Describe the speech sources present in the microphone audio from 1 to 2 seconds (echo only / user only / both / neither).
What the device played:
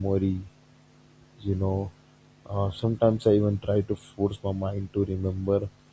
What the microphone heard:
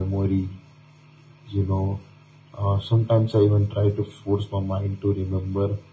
echo only